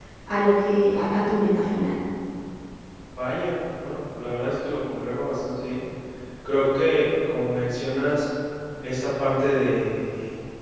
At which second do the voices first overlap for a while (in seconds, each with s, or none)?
none